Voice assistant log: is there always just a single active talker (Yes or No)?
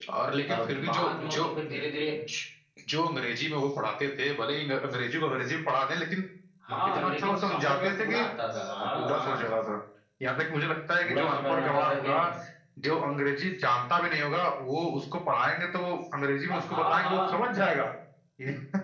No